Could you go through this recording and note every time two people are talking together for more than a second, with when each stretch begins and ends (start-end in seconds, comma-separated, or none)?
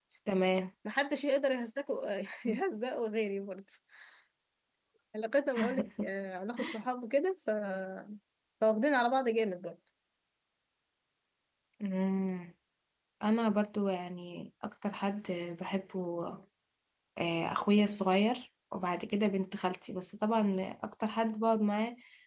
none